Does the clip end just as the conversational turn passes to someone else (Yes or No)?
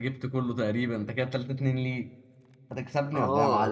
Yes